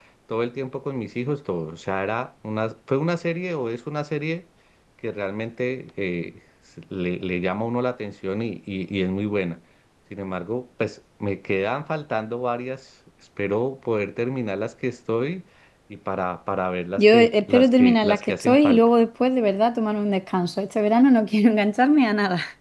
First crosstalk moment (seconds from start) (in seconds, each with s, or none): 17.0 s